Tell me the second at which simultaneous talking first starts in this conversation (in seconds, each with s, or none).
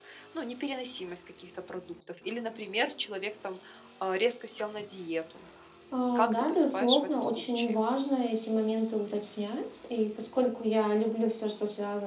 6.2 s